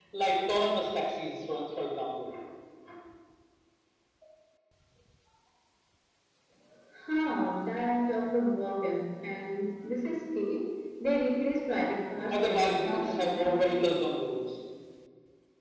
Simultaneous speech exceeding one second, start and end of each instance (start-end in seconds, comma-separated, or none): 12.3-13.8